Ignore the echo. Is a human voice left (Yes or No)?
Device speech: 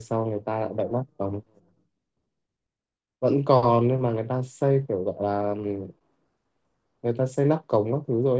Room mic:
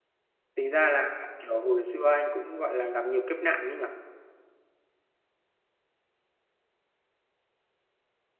Yes